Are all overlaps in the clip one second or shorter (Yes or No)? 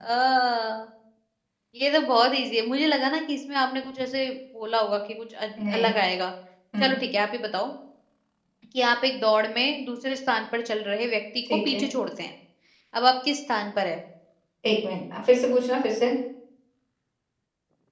Yes